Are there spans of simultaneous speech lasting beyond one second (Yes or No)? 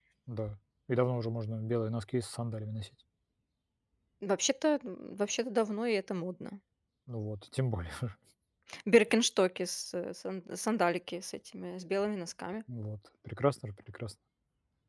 No